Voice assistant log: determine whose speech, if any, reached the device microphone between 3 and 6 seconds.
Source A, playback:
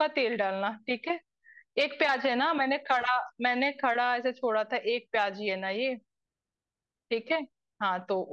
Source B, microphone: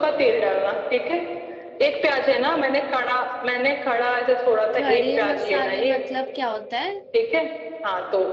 both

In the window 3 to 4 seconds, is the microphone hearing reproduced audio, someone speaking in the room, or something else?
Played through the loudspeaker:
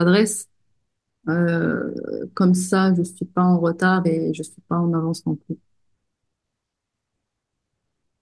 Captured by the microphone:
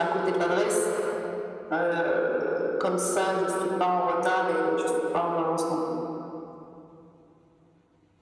echo only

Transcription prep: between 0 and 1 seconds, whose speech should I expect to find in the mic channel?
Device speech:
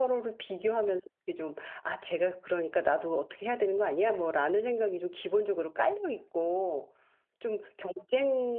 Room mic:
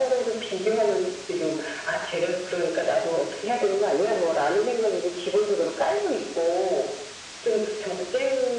echo only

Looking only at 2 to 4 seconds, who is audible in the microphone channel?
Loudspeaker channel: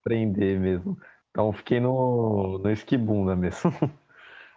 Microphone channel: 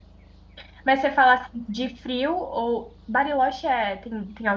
user only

